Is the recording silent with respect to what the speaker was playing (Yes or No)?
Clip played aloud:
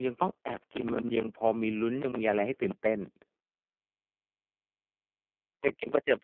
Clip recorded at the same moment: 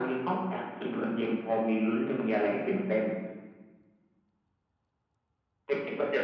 No